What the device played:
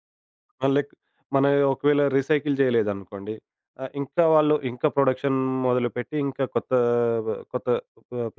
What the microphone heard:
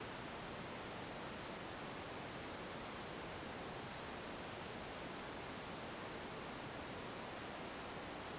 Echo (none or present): none